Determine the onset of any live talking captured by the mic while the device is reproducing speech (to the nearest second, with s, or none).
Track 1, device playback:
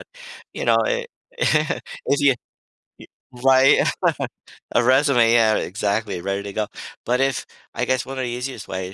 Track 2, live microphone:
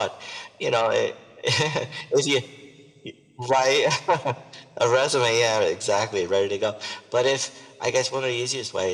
none